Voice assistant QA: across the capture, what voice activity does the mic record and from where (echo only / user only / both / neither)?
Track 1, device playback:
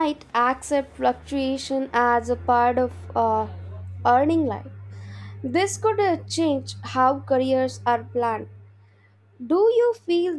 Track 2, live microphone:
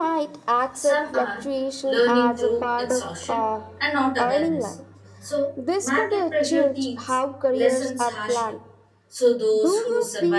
both